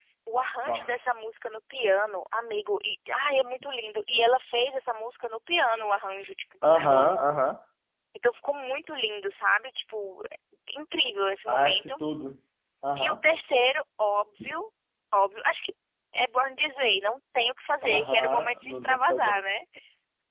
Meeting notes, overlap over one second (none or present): present